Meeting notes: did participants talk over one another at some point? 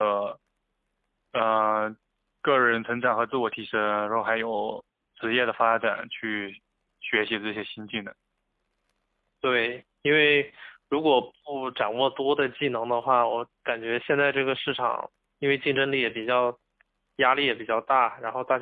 No

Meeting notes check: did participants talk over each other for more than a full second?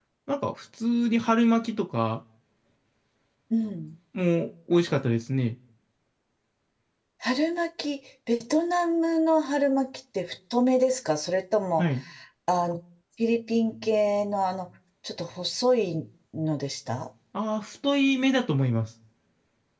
No

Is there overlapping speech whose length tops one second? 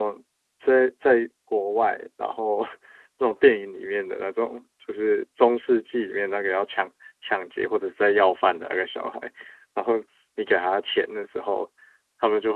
No

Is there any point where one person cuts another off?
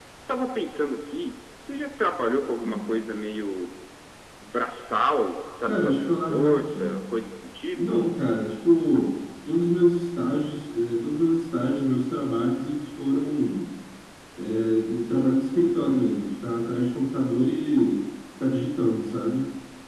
Yes, from 5.7 s

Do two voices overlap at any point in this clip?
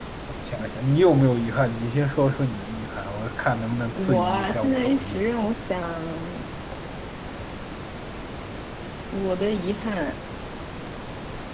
Yes, from 4.0 s

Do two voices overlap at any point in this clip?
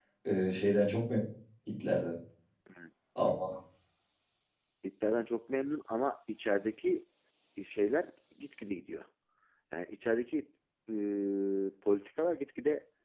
No

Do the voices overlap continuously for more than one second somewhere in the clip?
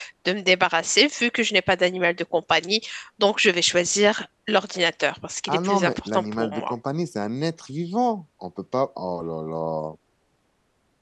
Yes, from 5.5 s

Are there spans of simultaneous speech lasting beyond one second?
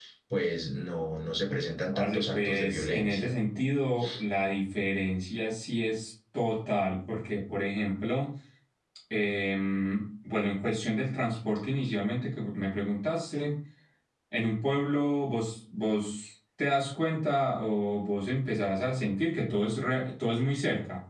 Yes, from 1.9 s

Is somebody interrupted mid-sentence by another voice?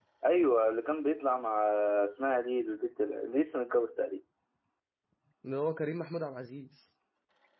No

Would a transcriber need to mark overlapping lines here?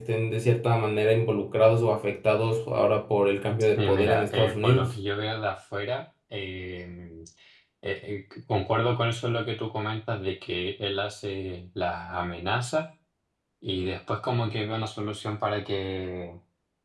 Yes, from 3.8 s

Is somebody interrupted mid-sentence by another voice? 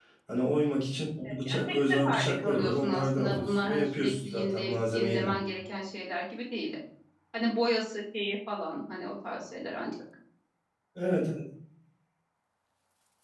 Yes, from 1.3 s

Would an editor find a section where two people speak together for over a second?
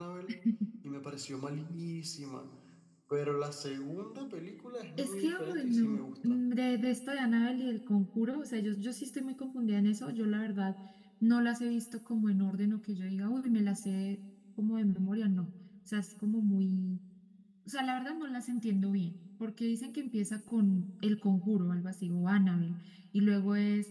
Yes, from 5.0 s

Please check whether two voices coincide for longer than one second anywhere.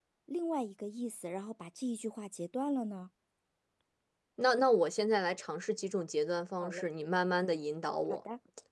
No

